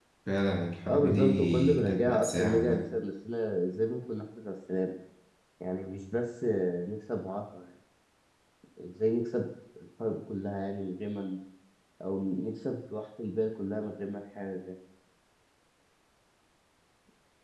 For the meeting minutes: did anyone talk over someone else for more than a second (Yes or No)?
Yes